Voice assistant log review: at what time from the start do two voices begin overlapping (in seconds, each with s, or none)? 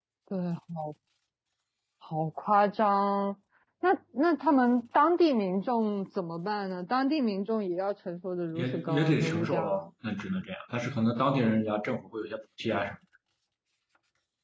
8.5 s